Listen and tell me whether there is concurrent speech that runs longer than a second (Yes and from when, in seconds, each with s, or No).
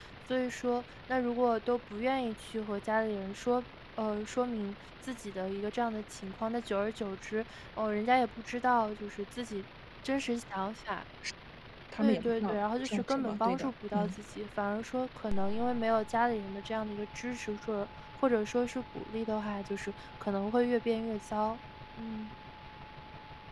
Yes, from 12.0 s